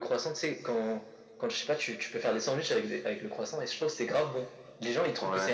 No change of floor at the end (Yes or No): Yes